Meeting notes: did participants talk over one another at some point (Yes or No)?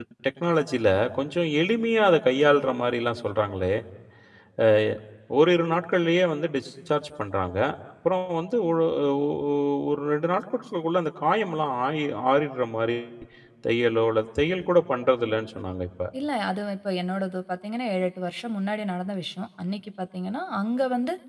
No